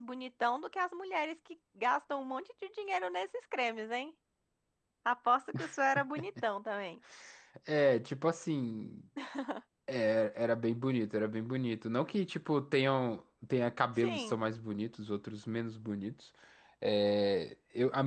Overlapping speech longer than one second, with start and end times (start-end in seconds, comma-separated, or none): none